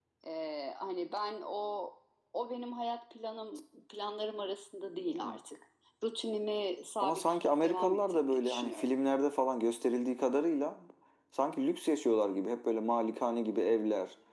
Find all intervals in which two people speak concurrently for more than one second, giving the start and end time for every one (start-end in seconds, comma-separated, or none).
7.0-8.9